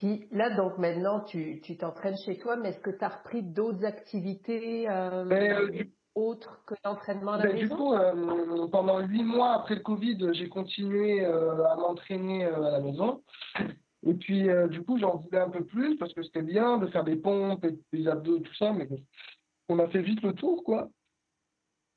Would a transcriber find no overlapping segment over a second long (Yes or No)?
Yes